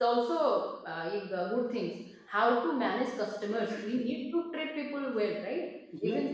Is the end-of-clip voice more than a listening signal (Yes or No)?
No